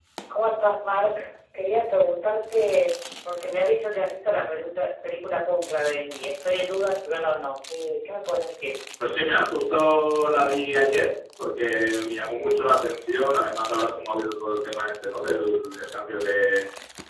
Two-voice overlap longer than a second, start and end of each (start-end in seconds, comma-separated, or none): none